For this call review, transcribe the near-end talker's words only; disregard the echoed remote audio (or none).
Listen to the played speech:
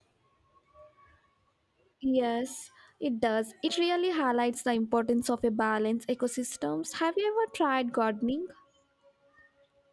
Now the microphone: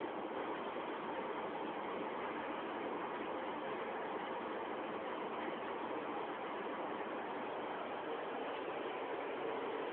none